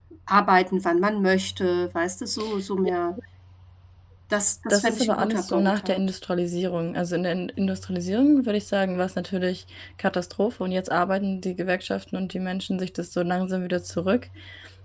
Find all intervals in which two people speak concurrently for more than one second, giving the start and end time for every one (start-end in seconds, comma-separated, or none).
4.7-6.0